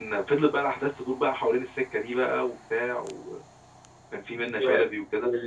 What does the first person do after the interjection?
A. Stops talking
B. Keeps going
A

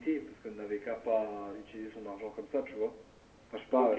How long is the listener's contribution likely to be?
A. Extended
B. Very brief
A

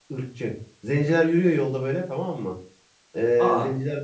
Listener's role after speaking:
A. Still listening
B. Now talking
A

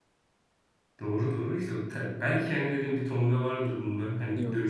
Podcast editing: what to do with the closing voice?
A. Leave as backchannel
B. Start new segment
A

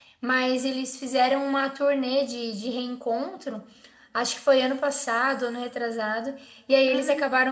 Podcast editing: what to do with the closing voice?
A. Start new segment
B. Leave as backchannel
B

